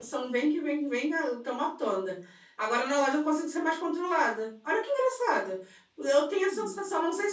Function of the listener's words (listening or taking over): listening